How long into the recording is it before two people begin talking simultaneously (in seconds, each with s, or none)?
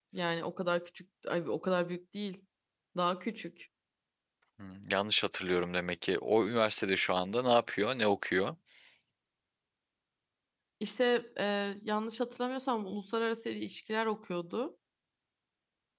none